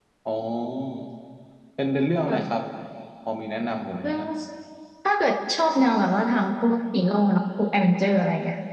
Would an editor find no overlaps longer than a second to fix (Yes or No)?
Yes